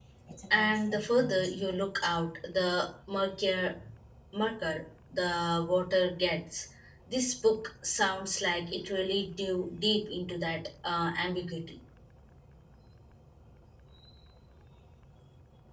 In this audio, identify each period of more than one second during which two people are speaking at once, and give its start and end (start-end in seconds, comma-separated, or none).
0.5-1.9